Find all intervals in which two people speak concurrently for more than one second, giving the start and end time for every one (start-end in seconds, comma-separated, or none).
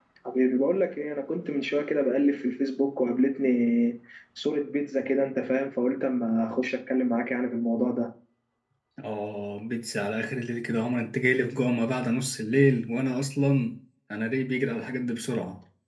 none